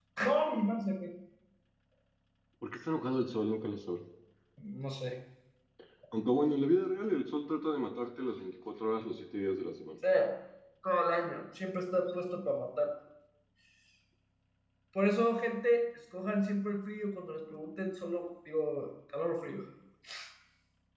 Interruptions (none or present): none